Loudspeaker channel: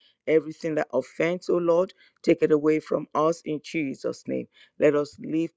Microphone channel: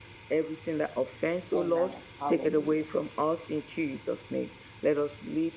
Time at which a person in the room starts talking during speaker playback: 1.6 s

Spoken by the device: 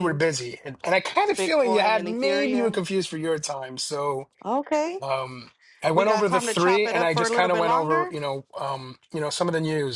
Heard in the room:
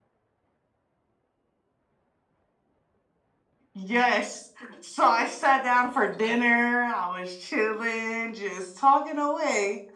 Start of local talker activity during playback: 3.7 s

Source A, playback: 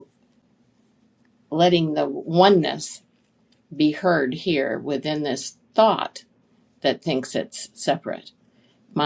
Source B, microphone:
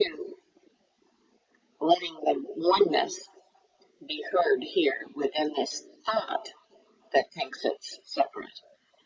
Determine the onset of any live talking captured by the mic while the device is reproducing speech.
none

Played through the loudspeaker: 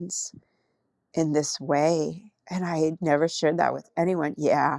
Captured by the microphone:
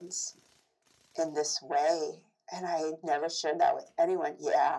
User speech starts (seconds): none

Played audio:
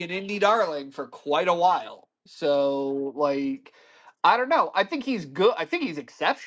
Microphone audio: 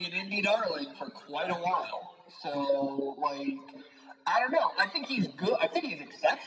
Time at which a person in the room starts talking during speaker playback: none

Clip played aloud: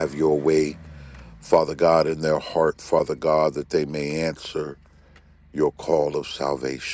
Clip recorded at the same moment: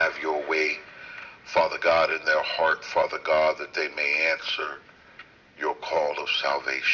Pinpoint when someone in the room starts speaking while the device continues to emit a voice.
none

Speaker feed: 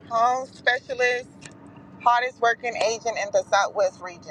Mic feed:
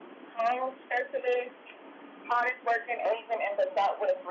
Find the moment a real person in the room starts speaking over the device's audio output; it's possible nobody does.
none

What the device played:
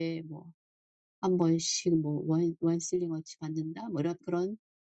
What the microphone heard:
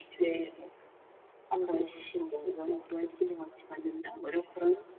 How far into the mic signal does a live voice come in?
none

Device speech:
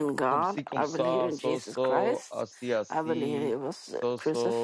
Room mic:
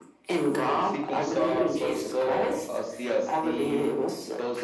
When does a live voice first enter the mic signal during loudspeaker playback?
none

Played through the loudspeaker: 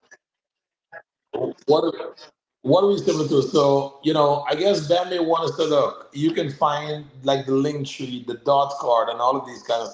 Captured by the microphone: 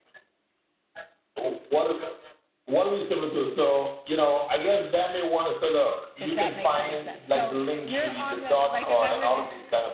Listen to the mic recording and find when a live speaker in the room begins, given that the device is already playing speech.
6.2 s

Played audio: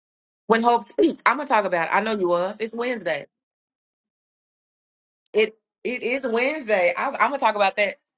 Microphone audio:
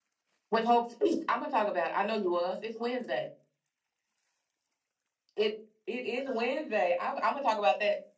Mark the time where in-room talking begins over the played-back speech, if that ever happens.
none

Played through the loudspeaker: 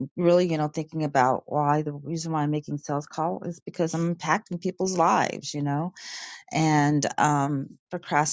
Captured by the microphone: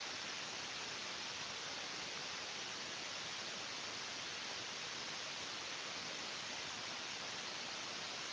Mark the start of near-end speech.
none

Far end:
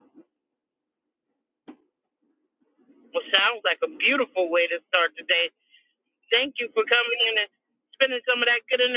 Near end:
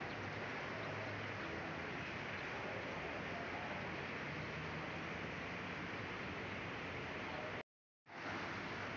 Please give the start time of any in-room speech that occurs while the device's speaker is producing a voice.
none

